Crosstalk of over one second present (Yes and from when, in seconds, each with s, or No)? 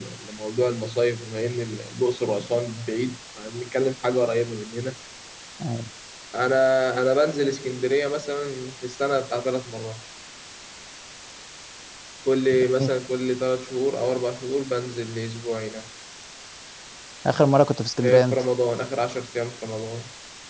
No